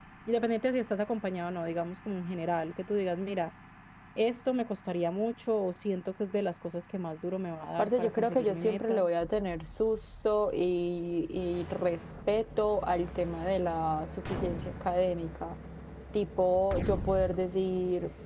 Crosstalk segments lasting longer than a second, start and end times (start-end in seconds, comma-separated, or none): 7.8-9.0